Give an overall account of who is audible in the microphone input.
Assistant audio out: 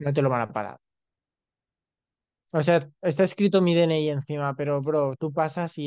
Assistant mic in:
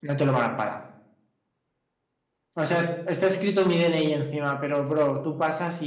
echo only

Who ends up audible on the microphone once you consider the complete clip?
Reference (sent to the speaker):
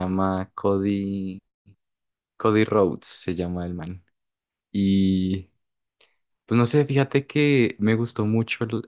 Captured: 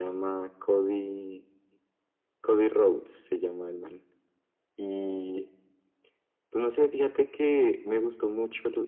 echo only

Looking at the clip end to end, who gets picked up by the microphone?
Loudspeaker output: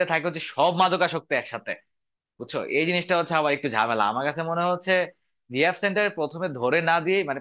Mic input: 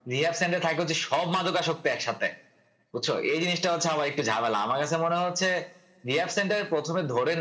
echo only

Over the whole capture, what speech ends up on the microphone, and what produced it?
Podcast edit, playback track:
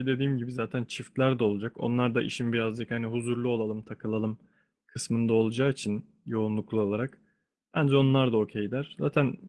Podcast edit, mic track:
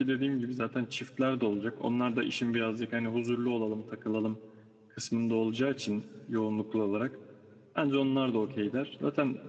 echo only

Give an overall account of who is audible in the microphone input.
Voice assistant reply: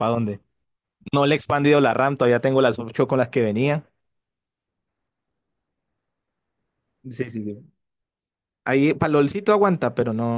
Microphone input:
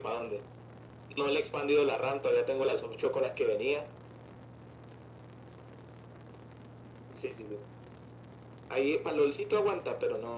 echo only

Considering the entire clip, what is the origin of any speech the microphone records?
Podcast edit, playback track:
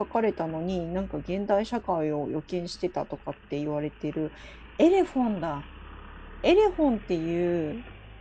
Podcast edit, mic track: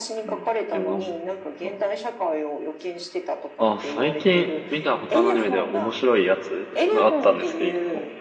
both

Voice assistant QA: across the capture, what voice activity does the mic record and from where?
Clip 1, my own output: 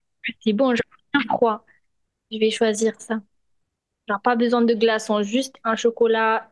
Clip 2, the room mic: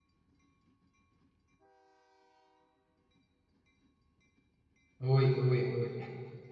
user only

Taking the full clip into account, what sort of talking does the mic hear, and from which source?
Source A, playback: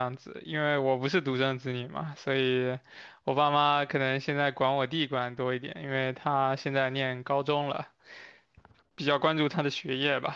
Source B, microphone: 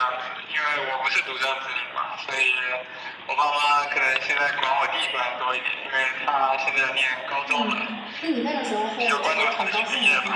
both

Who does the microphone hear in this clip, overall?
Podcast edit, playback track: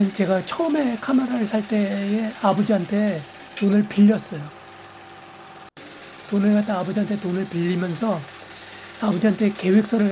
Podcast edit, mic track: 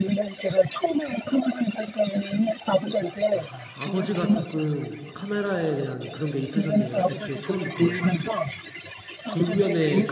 both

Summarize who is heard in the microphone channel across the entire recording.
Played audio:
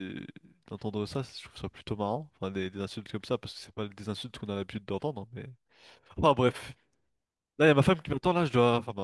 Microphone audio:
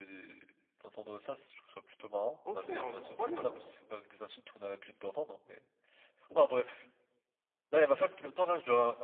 both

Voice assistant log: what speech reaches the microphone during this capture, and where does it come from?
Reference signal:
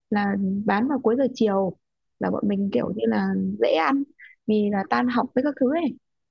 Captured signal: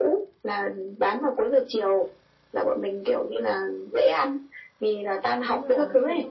both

